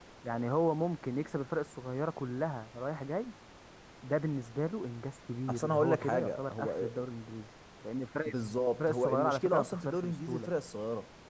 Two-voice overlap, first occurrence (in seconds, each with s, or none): 5.5 s